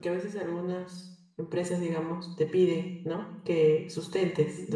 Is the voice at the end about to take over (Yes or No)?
No